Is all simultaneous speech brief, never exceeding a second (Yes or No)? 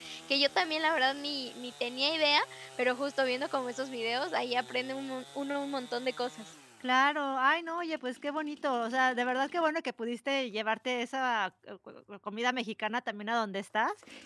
Yes